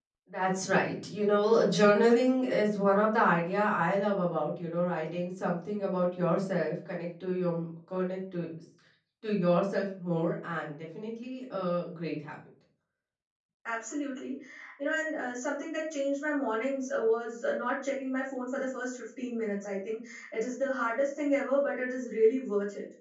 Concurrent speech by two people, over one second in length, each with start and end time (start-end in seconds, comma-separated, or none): none